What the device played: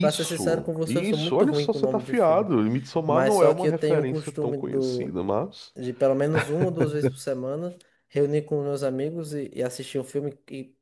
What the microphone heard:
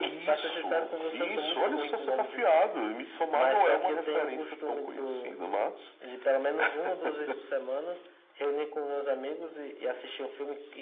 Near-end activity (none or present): none